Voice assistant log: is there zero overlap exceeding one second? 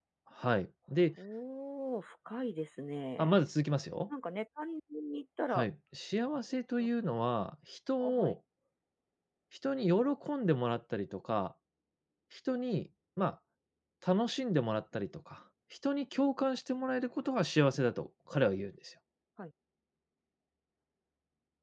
Yes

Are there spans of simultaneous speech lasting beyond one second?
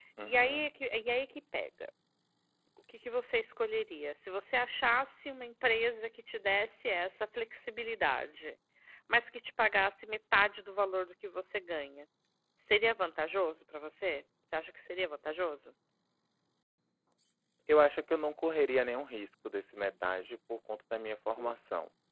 No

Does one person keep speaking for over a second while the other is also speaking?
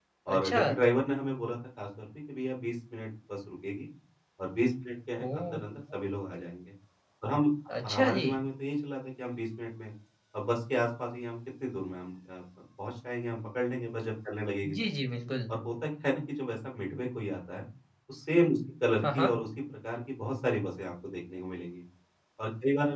No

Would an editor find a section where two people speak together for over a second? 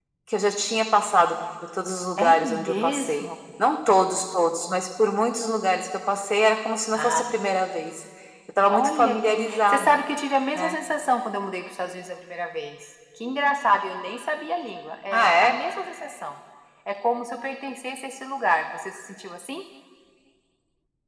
Yes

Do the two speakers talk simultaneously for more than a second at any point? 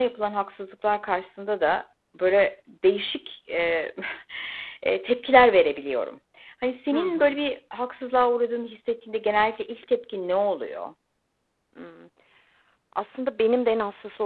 No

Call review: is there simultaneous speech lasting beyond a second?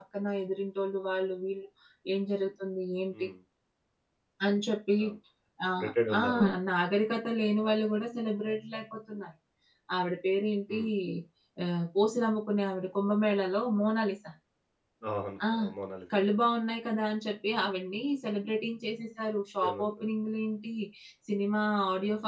No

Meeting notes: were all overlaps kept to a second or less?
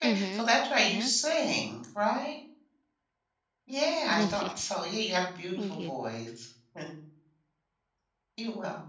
Yes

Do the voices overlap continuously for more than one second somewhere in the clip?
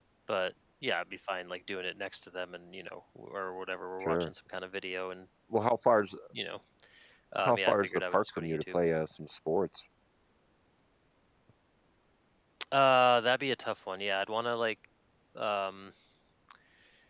Yes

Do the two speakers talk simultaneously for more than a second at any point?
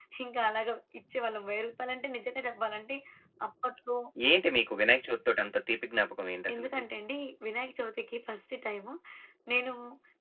No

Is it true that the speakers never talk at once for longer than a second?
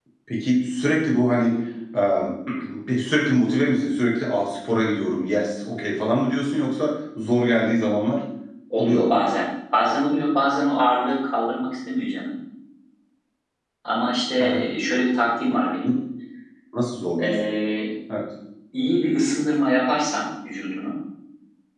Yes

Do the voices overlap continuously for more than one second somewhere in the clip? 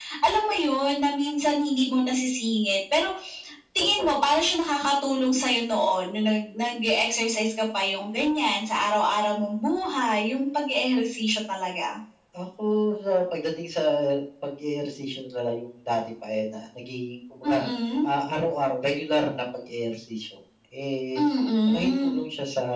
No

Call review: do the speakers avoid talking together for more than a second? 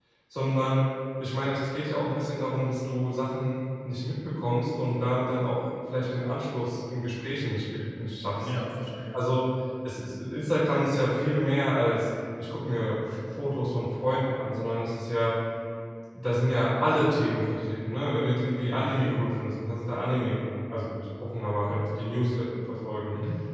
Yes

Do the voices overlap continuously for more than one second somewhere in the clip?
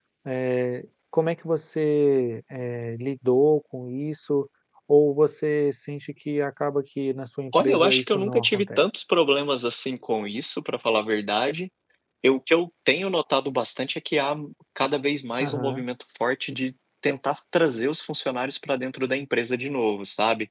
Yes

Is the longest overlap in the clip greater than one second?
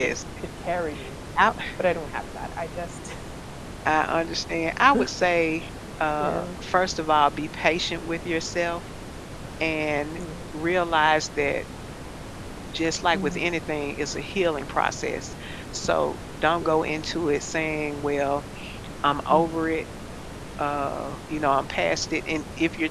No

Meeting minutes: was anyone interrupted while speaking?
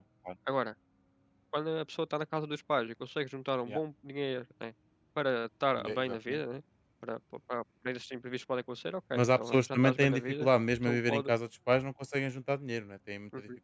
Yes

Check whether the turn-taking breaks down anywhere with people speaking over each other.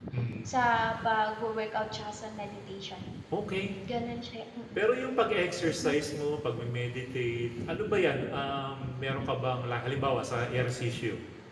No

